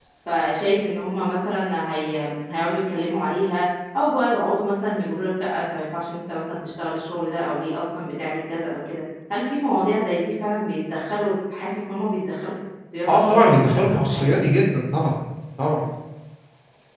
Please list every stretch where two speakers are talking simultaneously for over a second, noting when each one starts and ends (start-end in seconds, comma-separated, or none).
13.1-14.3